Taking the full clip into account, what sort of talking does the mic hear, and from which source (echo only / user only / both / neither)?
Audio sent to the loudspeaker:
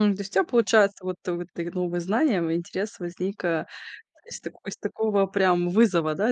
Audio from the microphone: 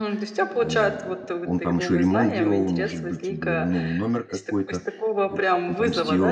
both